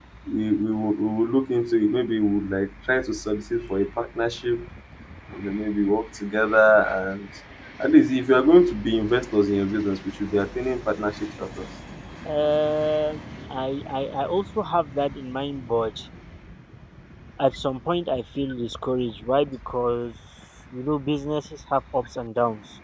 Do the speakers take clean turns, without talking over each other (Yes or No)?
Yes